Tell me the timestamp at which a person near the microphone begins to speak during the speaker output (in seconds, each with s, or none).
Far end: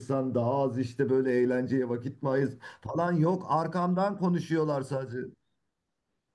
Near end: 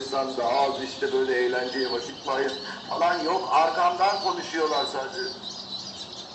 none